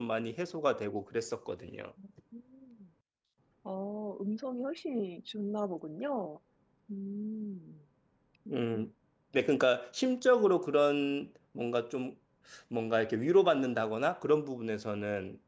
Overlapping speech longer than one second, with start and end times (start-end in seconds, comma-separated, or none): none